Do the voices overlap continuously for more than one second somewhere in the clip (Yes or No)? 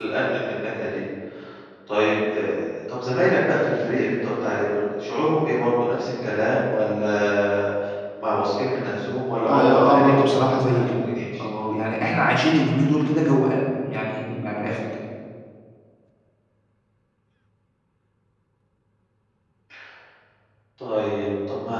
Yes